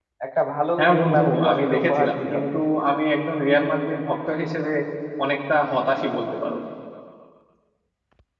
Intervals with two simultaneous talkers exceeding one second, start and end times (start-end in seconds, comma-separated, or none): 0.8-2.2